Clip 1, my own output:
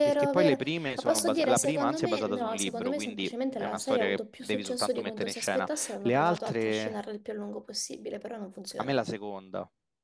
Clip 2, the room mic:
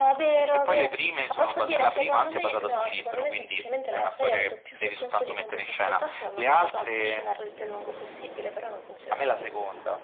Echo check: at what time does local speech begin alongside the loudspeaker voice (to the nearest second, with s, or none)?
none